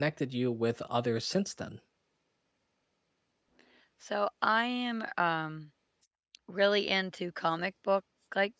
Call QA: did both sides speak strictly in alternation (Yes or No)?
Yes